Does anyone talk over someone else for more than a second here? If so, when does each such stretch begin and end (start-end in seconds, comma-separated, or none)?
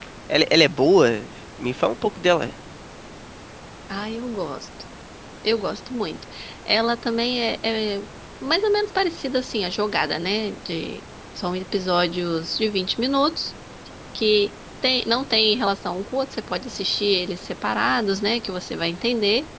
none